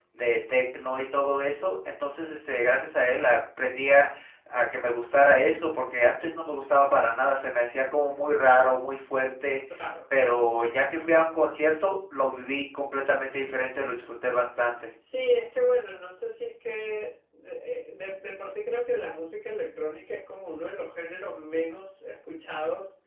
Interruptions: none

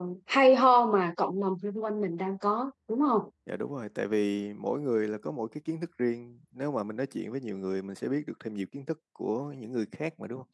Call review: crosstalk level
none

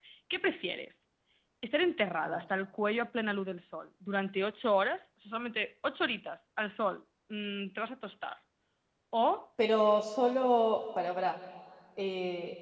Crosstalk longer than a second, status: none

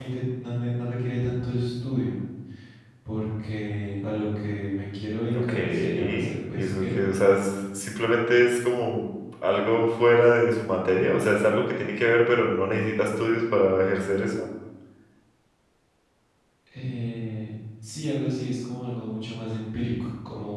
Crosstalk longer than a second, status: present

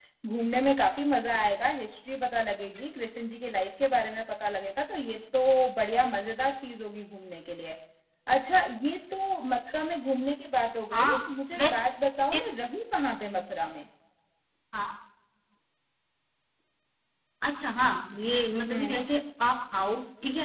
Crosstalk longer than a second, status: none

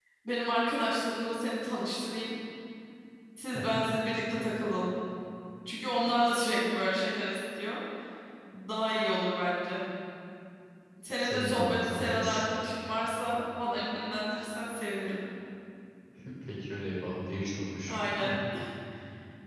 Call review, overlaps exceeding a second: present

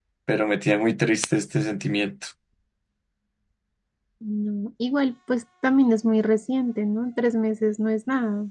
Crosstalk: none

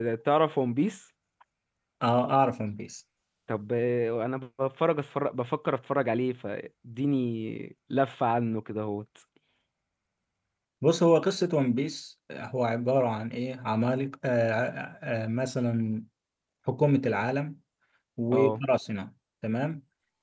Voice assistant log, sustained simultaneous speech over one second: none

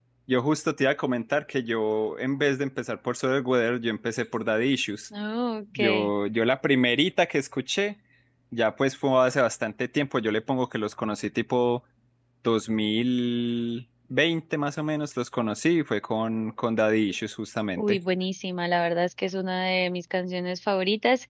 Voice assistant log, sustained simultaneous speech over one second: none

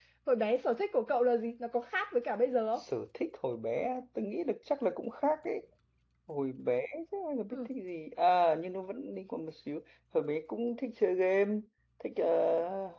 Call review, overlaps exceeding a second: none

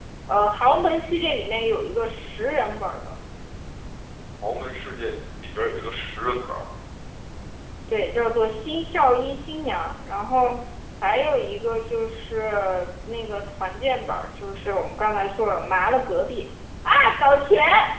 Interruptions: none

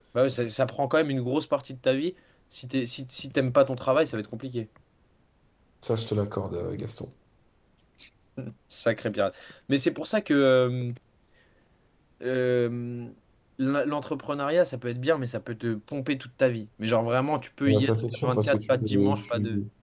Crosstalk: present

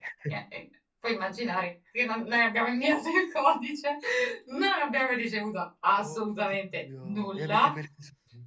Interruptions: present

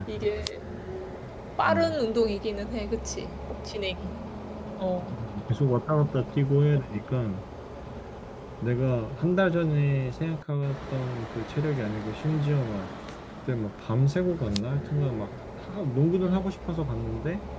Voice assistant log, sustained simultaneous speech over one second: none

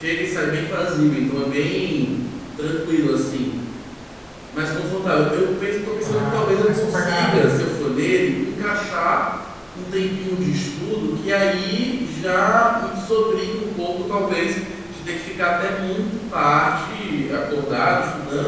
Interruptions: present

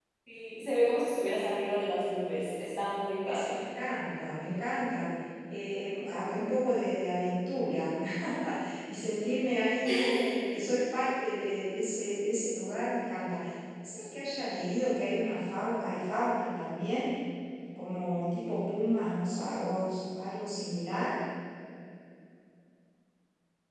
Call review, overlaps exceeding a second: none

